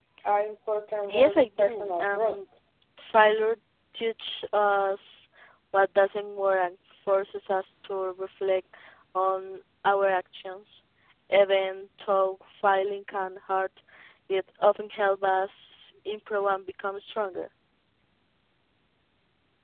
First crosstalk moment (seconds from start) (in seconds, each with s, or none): 1.1 s